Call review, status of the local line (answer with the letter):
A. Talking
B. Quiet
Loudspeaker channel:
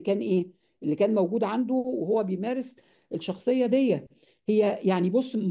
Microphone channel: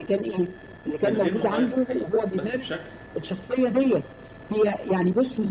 A